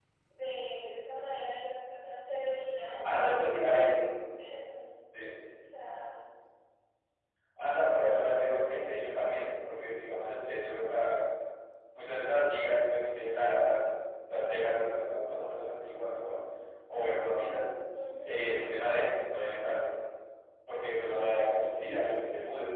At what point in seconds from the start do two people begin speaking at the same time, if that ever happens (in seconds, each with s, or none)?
none